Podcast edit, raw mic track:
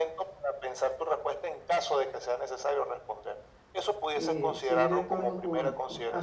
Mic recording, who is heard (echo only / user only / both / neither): both